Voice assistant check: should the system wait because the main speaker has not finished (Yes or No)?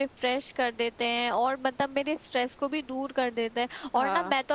Yes